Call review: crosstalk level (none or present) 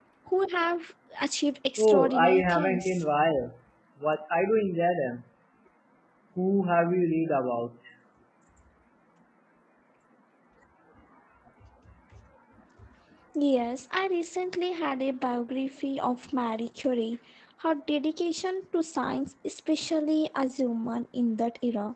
present